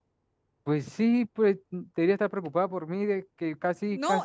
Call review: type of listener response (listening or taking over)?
taking over